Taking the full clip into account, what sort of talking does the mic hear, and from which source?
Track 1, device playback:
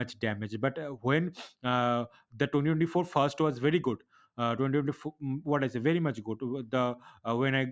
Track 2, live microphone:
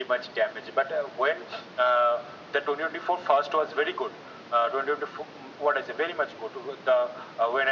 echo only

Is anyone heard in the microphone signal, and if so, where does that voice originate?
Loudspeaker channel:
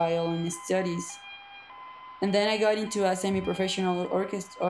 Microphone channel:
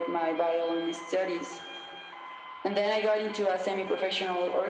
echo only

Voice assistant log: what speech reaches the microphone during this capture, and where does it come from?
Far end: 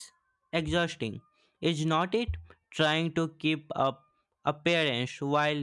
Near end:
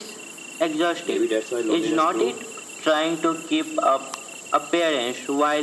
both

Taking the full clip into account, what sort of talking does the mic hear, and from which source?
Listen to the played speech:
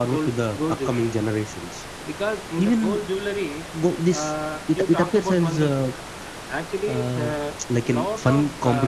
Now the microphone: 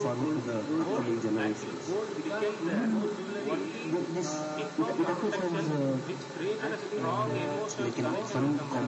both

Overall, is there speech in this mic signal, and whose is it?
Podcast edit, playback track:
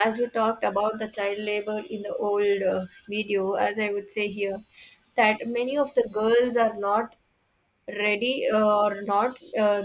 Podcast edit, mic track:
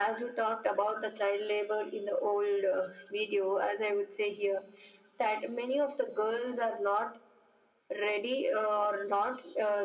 echo only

